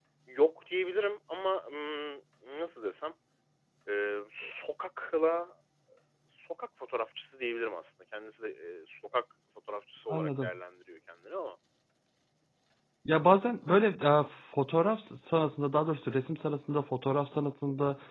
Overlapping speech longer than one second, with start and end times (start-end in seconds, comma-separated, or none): none